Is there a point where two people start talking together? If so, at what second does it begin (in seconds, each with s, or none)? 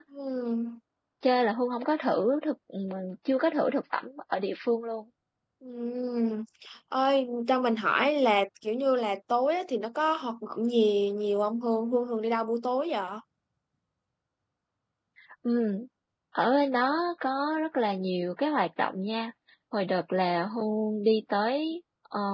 none